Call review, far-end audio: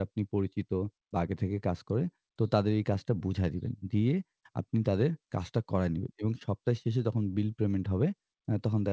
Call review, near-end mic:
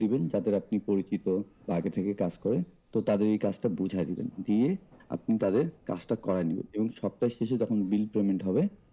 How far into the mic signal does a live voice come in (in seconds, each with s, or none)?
none